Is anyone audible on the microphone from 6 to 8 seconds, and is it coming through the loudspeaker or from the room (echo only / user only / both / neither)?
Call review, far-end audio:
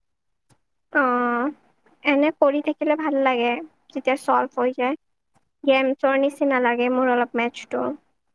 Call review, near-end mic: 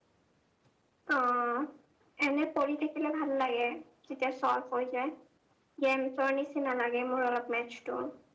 echo only